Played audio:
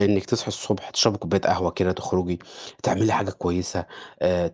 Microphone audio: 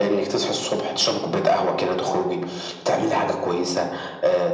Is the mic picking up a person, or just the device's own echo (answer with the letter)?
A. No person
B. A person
A